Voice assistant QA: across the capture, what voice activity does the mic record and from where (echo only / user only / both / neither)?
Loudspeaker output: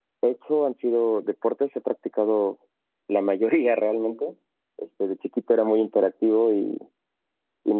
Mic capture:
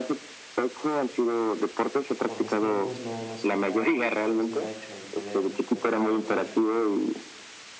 both